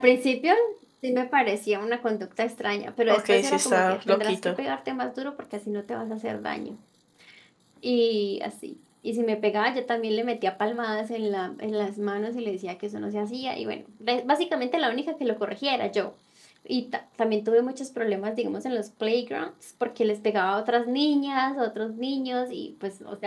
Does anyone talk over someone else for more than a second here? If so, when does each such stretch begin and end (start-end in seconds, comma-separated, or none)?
3.1-4.5